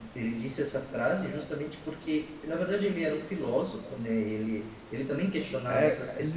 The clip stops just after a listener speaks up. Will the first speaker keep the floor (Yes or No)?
No